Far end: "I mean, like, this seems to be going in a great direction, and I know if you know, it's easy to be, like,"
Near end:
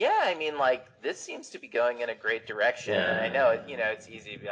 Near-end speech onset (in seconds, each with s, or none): 2.9 s